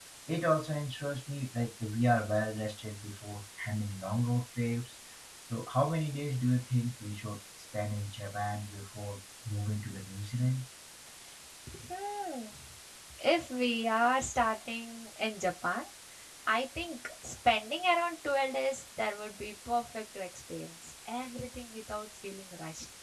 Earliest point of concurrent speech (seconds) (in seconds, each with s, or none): none